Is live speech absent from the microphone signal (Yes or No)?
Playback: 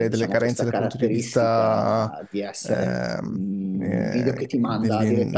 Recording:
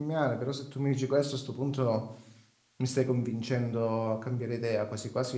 No